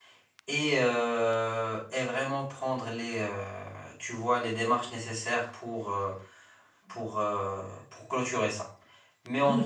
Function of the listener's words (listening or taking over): taking over